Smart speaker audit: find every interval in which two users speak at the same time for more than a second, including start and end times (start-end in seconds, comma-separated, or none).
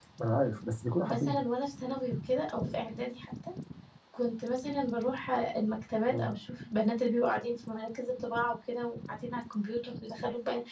none